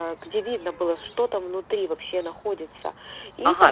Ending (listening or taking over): taking over